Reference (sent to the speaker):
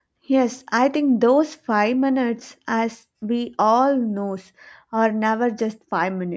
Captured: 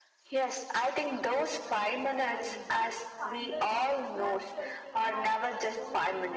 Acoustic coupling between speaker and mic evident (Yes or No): Yes